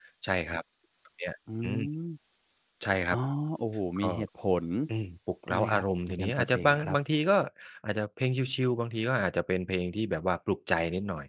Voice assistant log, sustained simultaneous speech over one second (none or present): present